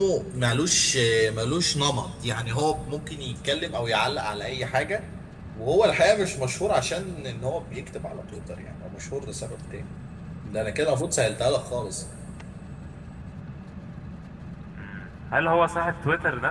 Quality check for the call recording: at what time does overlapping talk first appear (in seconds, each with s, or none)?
none